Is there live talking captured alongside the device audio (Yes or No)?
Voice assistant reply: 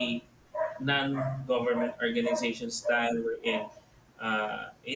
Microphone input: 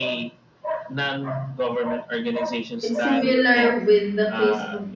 Yes